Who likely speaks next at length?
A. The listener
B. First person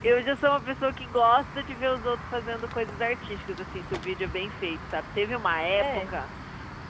B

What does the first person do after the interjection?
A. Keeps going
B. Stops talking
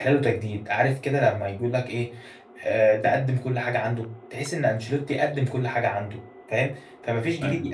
A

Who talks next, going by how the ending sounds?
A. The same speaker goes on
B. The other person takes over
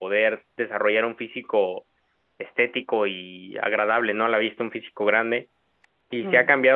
A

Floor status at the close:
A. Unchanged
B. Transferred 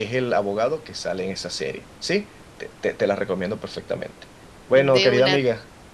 A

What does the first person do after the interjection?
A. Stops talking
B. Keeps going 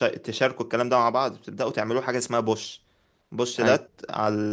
B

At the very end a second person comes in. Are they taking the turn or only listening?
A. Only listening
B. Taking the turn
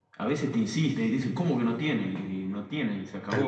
A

